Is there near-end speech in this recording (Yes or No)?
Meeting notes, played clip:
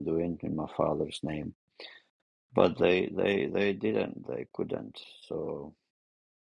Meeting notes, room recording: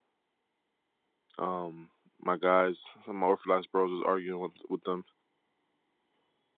Yes